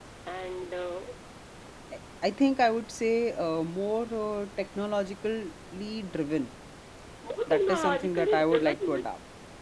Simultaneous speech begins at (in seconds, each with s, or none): 7.5 s